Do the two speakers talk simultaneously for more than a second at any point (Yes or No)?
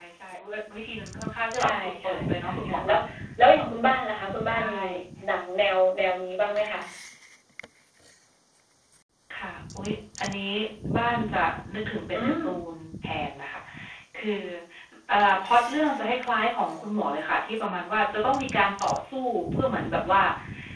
Yes